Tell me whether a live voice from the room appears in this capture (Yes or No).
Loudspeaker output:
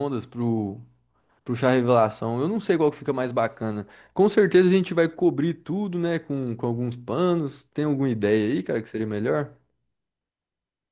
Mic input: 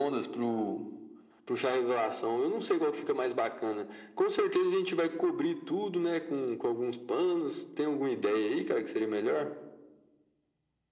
No